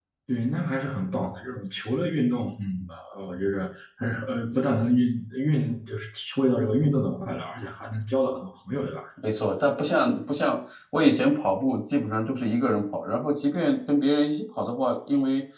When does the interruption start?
none

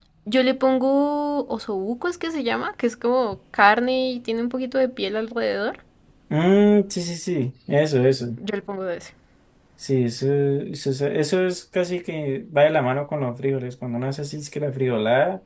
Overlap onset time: none

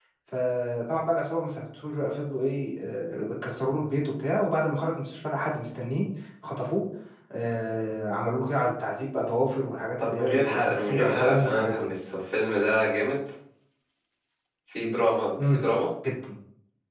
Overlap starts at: 10.0 s

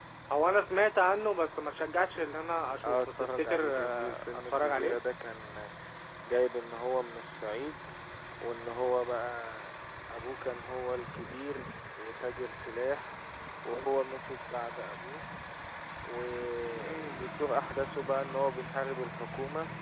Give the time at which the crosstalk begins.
2.8 s

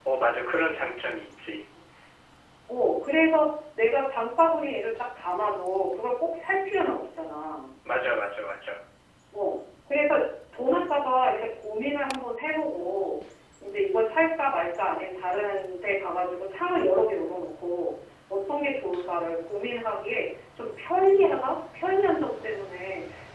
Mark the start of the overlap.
none

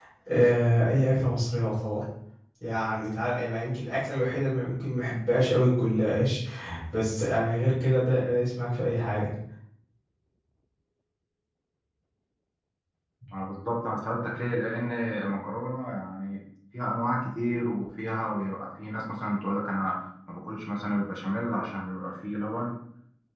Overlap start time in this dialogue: none

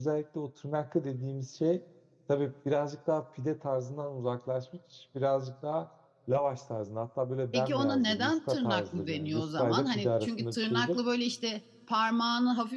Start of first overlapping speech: 7.5 s

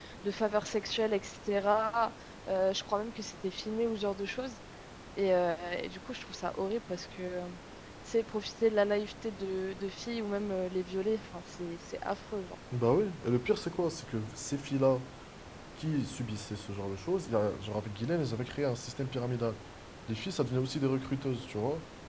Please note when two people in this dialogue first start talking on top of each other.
none

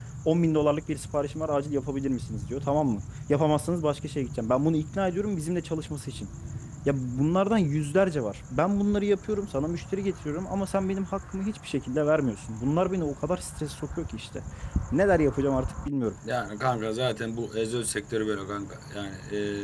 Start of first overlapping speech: none

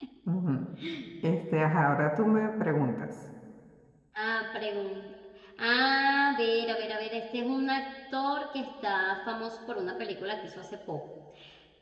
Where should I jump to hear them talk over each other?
none

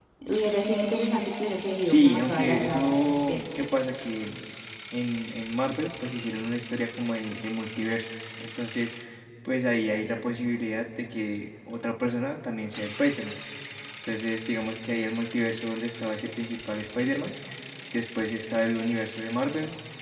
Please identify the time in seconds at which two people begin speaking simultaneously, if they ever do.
1.8 s

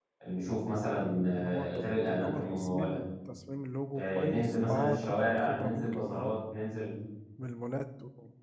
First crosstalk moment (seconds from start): 1.4 s

